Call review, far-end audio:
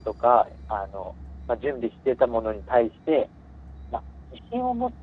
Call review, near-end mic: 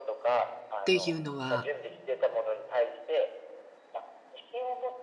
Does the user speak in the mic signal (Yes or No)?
Yes